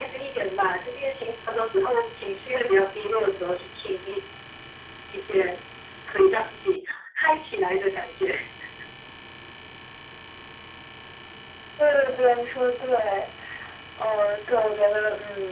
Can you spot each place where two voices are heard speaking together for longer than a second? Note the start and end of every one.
none

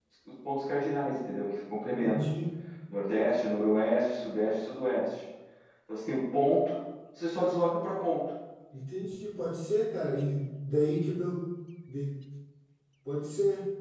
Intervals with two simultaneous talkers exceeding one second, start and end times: none

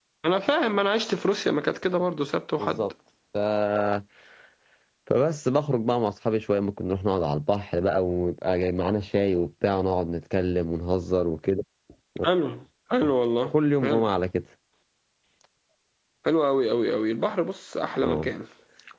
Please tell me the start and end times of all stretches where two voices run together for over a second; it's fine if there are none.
none

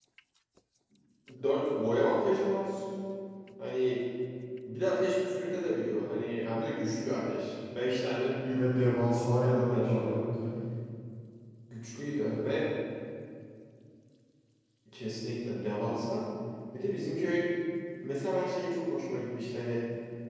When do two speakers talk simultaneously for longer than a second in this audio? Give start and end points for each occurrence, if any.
8.5-10.3

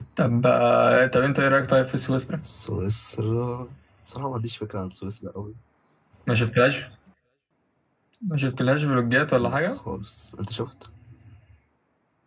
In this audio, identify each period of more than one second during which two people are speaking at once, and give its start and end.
none

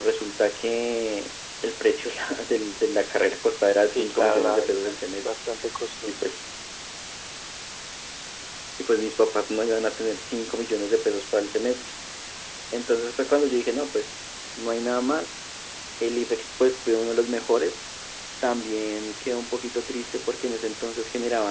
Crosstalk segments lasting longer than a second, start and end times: 3.8-5.2

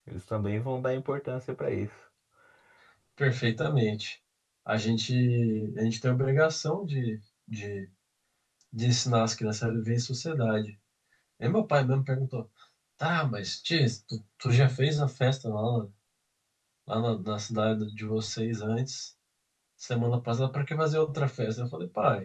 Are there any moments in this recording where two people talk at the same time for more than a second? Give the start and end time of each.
none

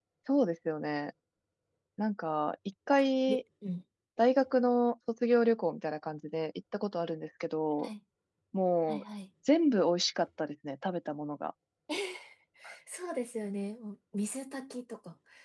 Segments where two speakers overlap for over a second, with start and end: none

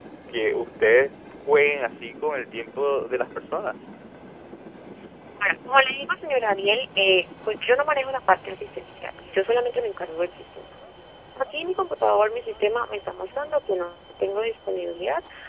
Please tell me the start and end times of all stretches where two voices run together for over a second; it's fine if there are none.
none

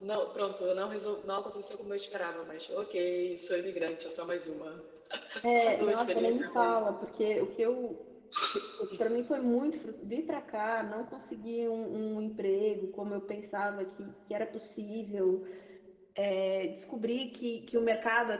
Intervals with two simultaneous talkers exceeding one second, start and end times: 5.4-6.8

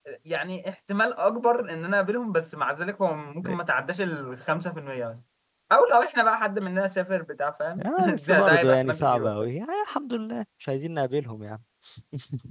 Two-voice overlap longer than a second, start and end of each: 8.0-9.5

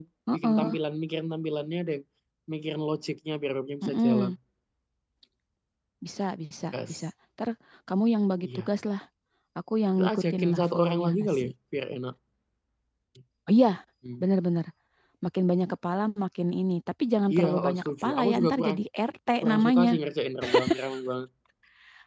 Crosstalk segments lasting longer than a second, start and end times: 10.0-11.5, 17.3-18.8

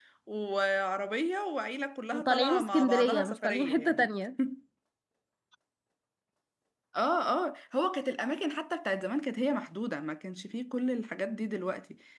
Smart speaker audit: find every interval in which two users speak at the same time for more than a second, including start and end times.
2.1-4.1

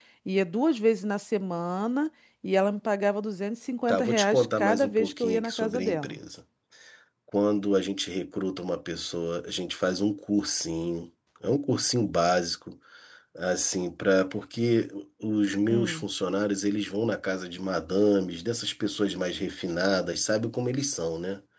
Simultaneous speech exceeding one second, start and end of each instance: 3.9-6.2

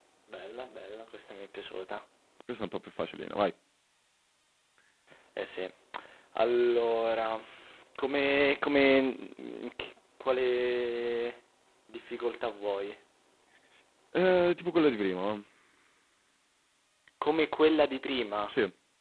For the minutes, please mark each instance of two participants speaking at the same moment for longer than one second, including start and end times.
none

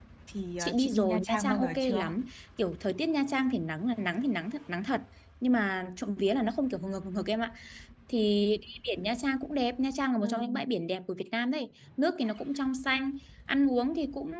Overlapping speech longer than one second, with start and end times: 0.6-2.1

